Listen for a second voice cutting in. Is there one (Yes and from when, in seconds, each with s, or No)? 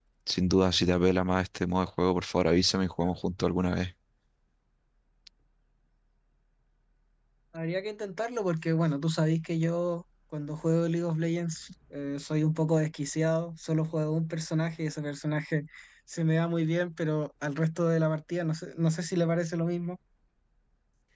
No